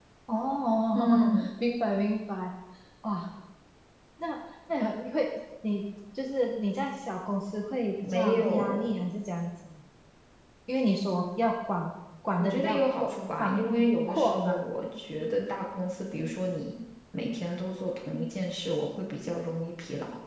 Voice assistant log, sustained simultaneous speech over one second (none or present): present